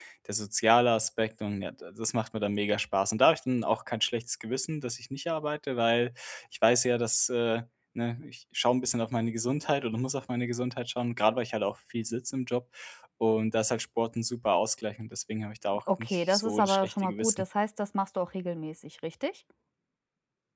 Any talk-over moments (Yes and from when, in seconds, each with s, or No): Yes, from 16.0 s